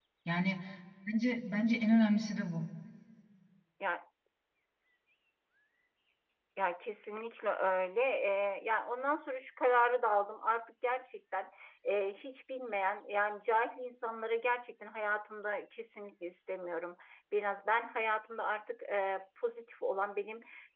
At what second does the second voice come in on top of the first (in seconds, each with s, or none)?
none